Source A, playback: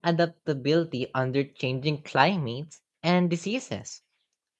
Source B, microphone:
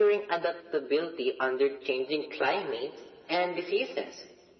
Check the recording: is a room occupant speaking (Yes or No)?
No